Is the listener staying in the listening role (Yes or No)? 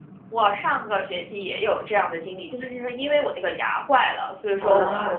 Yes